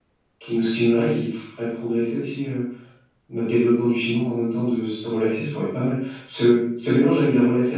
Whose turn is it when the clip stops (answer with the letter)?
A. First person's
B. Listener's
A